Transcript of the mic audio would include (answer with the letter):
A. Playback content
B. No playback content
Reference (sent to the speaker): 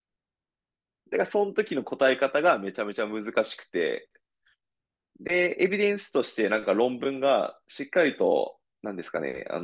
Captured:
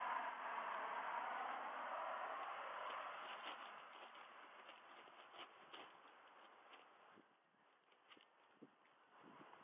B